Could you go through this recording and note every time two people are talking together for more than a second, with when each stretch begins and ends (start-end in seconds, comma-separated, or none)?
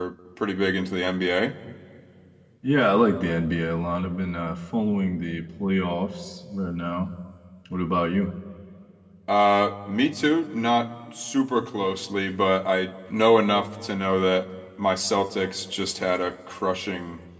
none